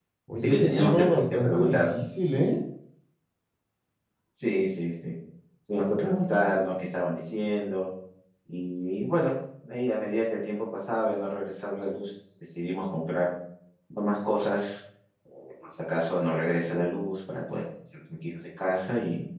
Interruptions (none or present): present